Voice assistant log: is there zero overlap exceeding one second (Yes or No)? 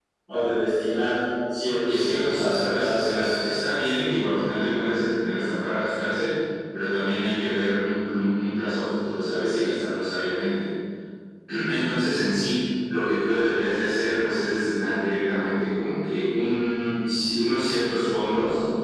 No